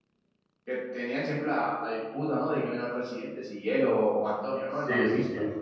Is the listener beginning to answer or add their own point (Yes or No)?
Yes